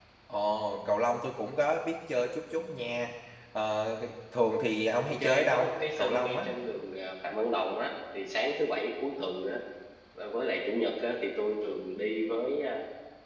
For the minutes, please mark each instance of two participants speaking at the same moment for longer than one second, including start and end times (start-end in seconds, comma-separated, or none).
5.1-6.5